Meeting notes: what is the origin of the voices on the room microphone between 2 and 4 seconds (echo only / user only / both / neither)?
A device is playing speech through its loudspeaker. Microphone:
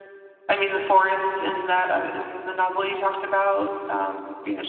echo only